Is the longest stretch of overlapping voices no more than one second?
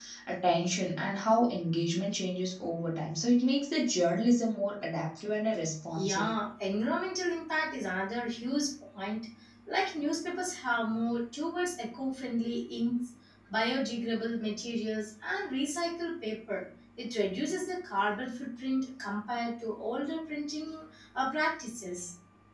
Yes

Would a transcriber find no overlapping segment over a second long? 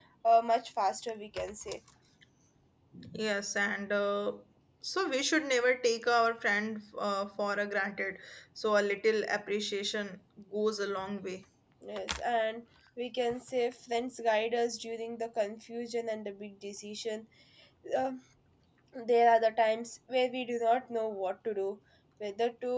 Yes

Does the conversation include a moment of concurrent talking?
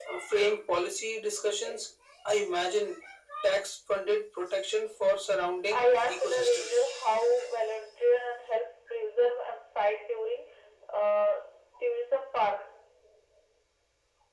Yes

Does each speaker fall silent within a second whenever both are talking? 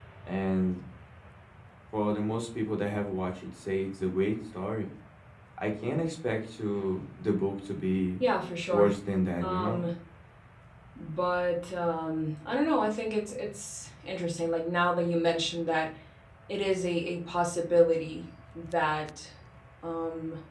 Yes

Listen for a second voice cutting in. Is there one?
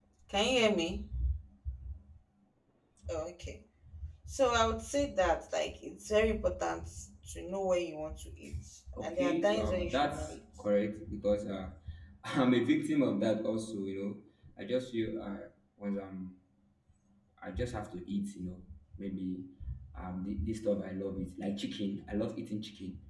Yes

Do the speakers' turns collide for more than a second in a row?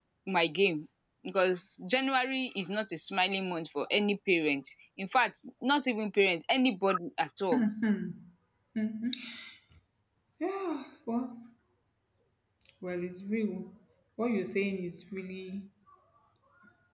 No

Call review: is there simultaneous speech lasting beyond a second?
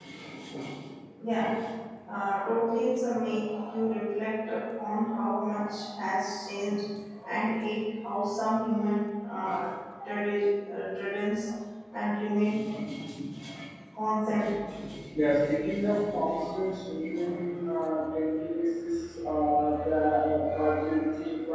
No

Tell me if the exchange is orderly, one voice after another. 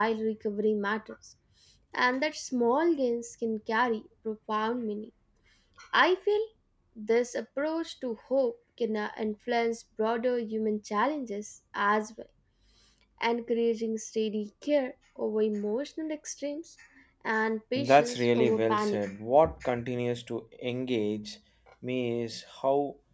No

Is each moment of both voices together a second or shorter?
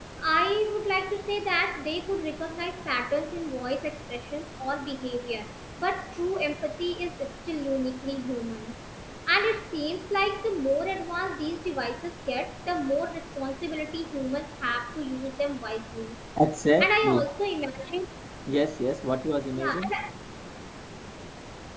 Yes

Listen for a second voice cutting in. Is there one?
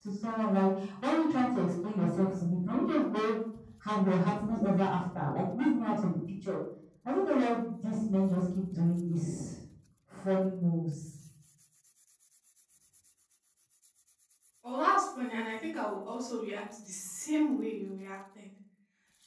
No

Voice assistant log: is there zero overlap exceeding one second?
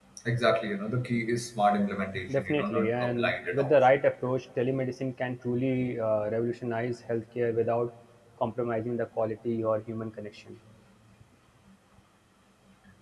No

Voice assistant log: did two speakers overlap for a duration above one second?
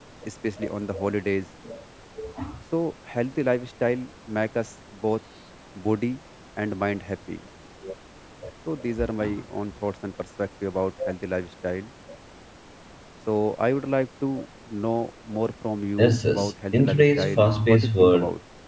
Yes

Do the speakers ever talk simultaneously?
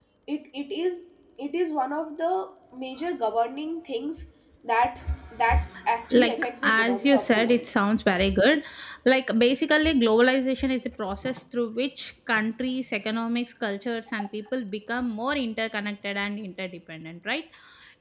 Yes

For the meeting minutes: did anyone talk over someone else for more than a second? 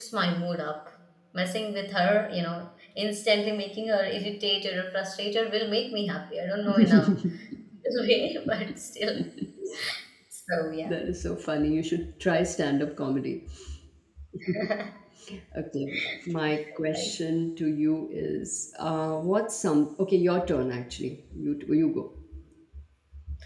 No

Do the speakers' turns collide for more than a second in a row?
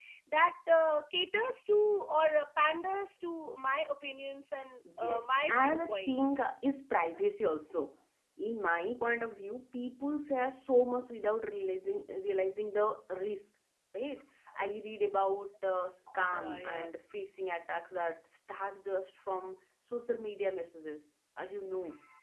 Yes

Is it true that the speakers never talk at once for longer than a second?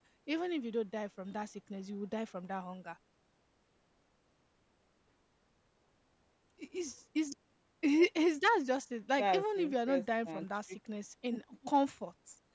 No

